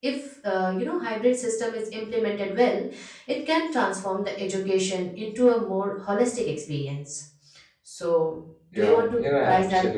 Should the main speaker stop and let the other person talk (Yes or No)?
Yes